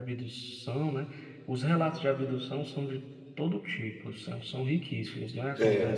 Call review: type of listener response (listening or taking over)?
listening